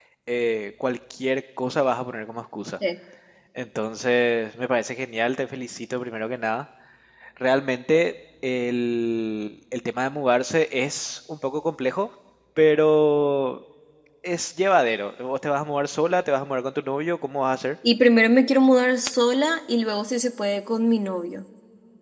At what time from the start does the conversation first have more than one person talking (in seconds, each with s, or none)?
none